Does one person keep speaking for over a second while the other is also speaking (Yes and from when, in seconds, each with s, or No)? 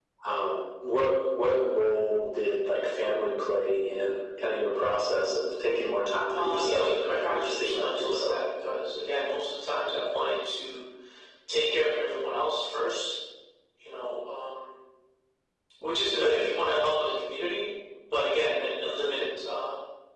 Yes, from 6.3 s